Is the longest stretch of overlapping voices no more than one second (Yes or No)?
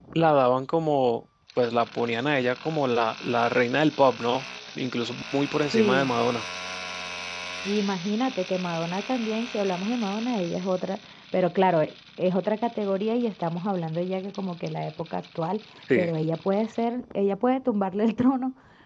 Yes